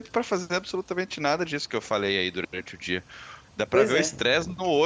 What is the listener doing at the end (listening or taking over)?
listening